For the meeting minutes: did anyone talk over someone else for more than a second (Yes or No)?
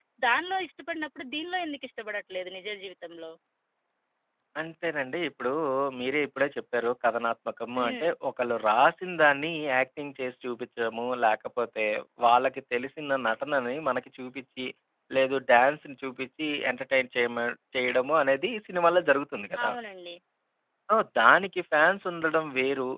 No